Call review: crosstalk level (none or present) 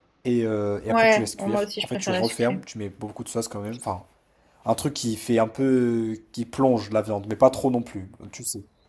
present